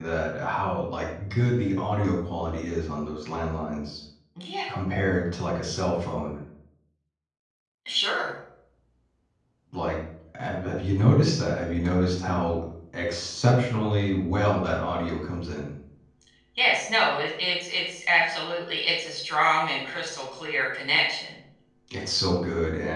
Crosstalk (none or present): none